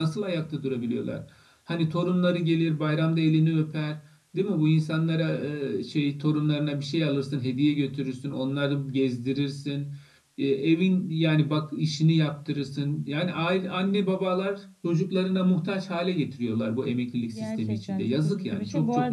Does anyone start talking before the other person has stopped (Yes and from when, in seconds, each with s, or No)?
Yes, from 17.3 s